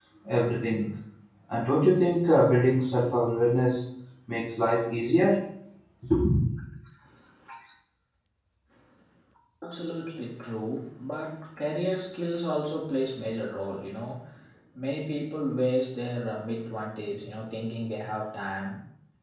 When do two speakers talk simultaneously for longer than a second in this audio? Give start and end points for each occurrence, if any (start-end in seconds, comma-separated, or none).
none